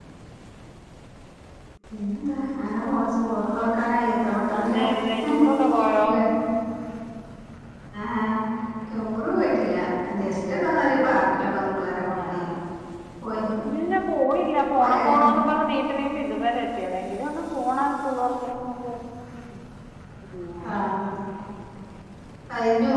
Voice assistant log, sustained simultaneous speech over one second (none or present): none